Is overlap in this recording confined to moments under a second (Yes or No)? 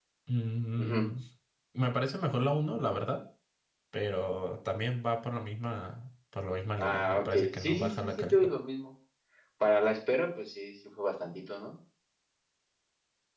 No